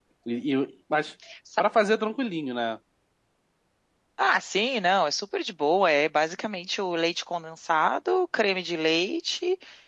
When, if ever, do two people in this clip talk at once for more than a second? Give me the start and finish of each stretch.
none

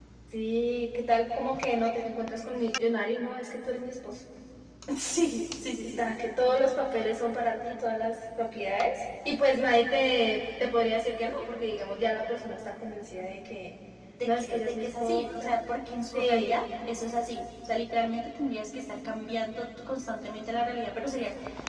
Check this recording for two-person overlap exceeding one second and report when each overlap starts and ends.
14.2-15.5

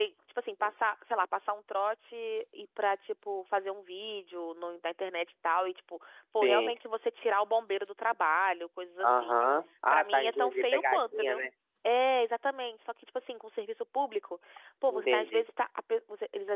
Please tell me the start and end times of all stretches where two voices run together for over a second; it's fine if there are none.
9.9-11.4

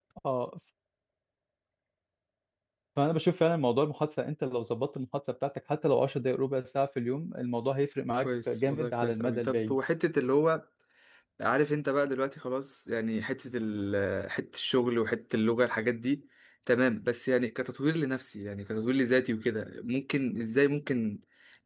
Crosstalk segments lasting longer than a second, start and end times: 8.2-9.8

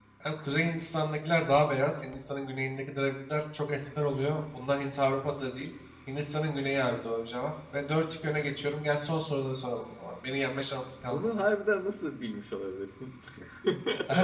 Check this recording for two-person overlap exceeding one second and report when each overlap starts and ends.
none

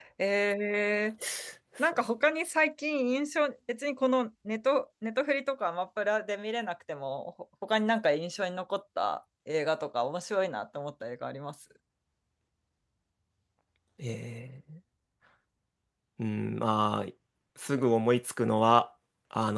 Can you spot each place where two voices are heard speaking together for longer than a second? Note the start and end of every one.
none

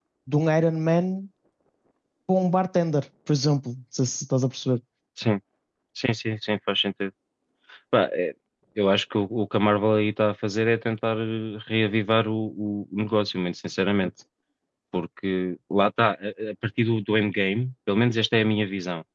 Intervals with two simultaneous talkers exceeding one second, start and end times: none

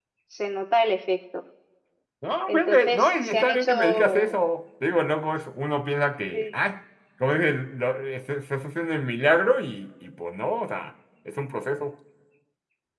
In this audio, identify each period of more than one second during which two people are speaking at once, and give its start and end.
2.5-4.4

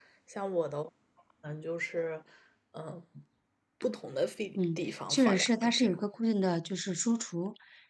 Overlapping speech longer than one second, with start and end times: 4.5-6.0

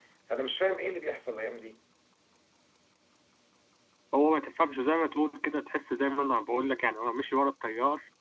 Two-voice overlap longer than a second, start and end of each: none

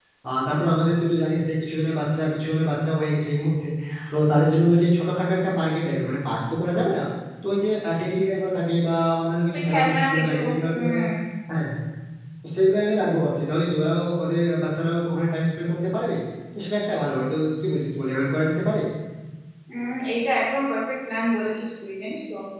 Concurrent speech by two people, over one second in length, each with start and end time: 9.5-10.9

